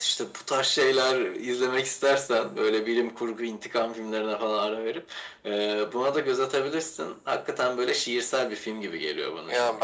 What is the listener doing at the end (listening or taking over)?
taking over